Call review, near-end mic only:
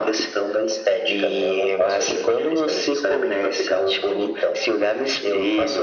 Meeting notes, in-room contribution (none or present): none